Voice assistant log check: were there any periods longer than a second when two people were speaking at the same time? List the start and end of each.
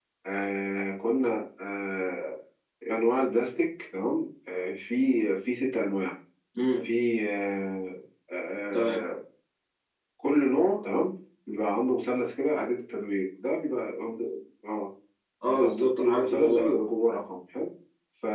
15.5-16.8

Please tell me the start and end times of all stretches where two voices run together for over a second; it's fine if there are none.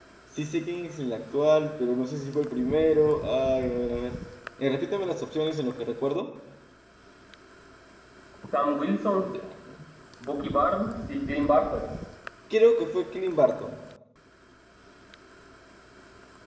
none

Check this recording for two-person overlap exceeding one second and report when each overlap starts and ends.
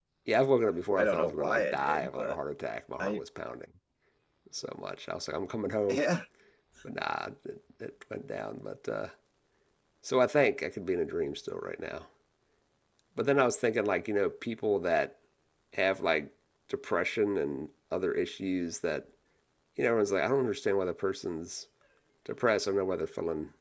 1.0-2.4

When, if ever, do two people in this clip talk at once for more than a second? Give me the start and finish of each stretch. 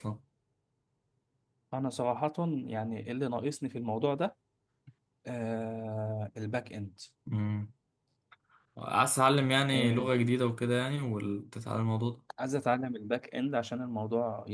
none

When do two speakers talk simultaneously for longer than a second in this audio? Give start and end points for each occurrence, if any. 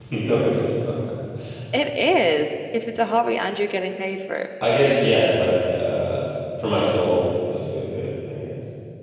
none

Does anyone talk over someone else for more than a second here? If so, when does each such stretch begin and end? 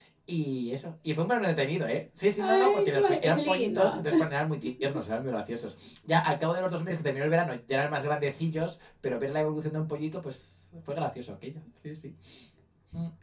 2.4-4.0

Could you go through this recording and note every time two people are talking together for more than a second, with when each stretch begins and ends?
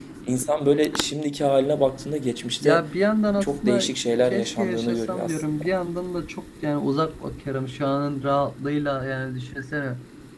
4.2-5.7

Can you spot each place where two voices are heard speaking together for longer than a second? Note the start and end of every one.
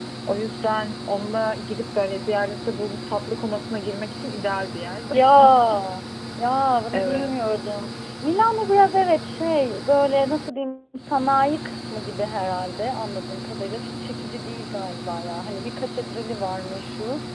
none

